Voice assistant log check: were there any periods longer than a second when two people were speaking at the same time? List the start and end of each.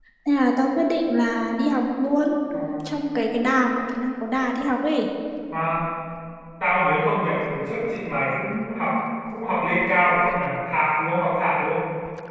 none

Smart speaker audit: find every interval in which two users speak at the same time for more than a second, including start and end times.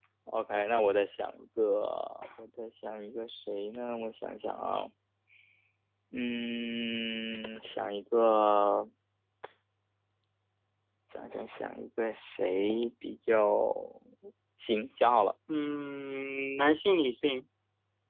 none

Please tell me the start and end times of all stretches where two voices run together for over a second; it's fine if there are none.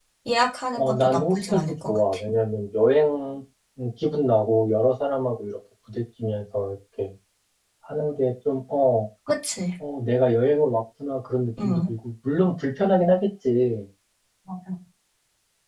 0.7-2.0

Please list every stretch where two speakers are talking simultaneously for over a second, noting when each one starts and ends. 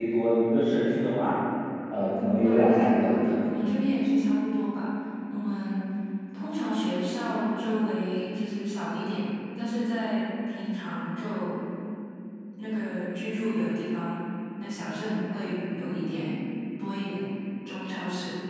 2.1-3.4

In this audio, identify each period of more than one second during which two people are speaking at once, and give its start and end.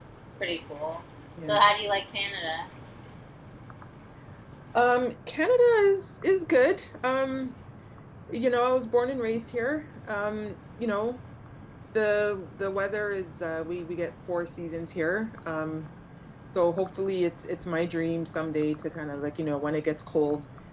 none

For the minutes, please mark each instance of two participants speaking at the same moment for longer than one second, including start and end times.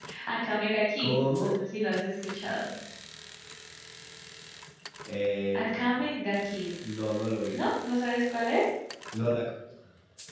none

